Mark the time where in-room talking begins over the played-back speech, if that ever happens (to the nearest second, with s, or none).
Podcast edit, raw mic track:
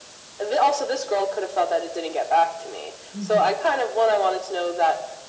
3 s